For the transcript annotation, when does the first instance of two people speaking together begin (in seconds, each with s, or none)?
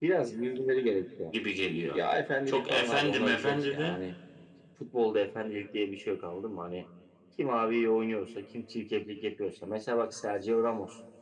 2.5 s